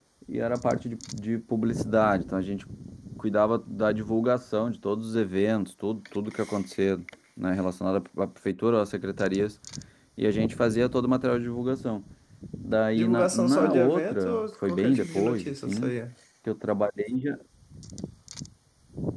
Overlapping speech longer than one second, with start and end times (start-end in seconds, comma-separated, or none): 12.9-15.9